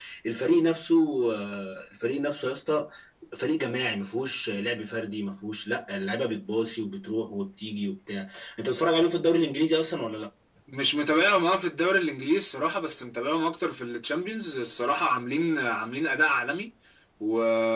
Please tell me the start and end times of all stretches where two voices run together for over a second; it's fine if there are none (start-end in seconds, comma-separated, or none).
none